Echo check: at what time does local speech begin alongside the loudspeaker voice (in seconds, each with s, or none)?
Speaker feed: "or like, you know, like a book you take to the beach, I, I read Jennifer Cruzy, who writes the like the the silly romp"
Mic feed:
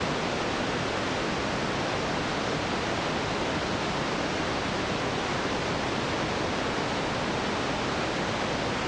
none